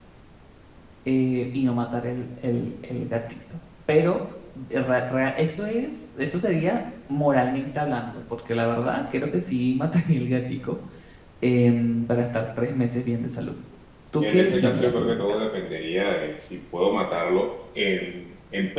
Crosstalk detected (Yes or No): Yes